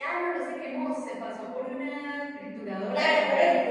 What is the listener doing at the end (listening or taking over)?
taking over